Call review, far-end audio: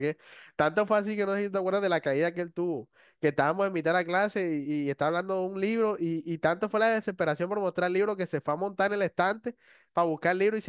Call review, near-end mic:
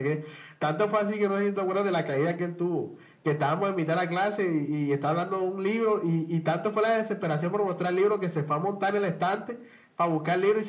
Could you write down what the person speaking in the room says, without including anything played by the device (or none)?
none